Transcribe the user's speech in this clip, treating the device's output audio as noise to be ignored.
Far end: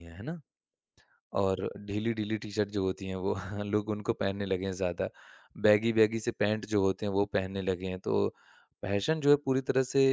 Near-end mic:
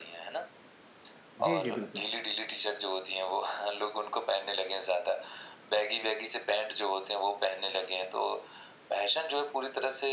जी, जी, बिल्कुल।

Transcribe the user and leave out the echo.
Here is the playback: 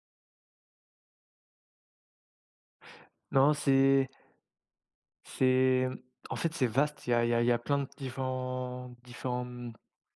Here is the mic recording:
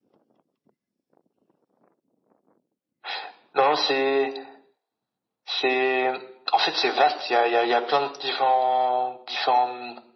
none

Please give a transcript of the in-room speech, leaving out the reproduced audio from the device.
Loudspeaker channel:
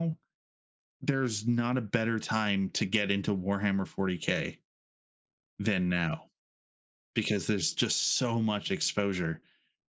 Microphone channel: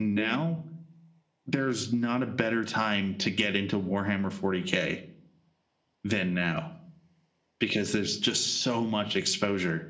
none

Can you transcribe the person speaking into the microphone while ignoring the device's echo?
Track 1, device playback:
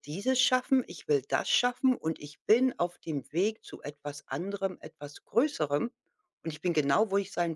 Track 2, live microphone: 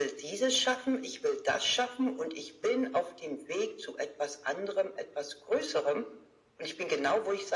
none

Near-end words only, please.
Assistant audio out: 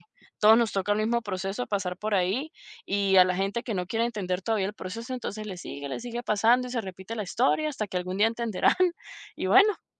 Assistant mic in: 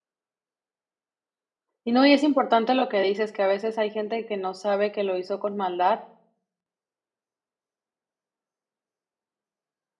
Y no, y es importante lo que dices, que a veces hay gente que no sabe que lo hizo con maldad

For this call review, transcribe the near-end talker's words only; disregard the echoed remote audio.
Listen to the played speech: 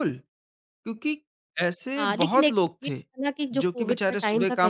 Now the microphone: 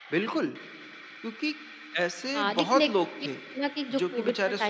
none

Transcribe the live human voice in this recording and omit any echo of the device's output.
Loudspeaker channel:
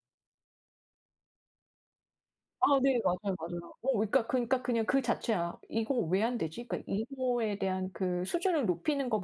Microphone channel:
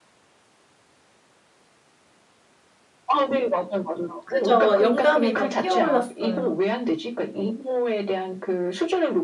그죠. 영감이 막 피어올랐어요.

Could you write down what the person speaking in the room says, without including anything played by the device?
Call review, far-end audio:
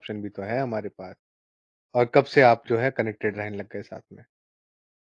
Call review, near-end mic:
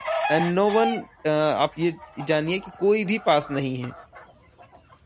एंड नो वन अ, आप ये जानिए कि कोई भी पास नहीं है।

